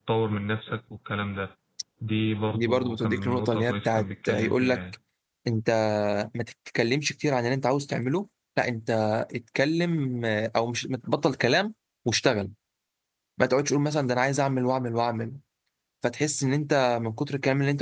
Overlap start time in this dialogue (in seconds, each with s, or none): 2.5 s